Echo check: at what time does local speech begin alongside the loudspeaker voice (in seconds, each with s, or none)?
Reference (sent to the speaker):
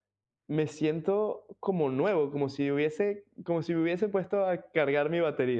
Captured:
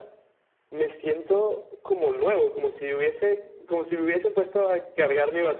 2.4 s